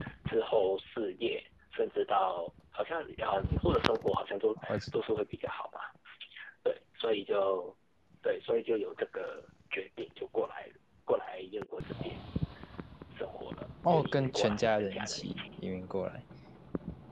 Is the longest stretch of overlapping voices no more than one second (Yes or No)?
No